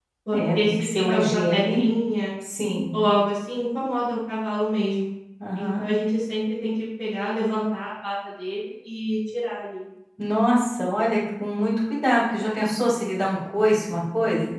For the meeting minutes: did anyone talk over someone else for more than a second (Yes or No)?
Yes